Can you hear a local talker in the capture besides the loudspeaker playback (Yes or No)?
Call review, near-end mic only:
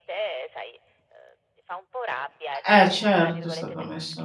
Yes